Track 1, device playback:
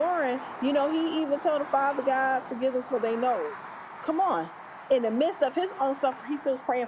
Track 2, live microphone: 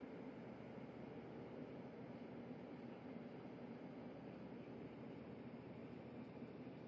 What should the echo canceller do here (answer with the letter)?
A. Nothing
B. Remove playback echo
A